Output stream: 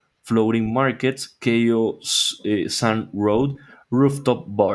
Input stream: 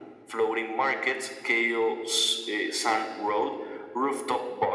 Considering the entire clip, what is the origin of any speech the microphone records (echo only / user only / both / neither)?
echo only